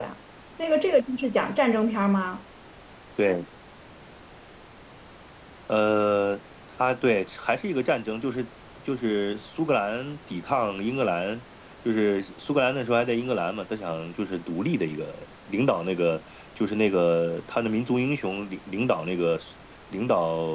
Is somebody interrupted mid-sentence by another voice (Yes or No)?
No